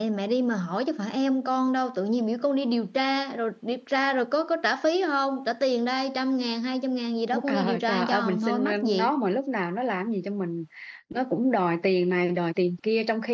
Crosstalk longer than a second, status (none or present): present